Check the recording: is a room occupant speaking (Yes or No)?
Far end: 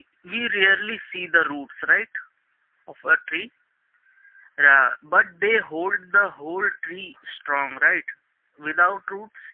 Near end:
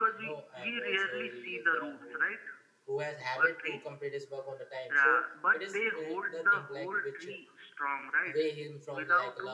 Yes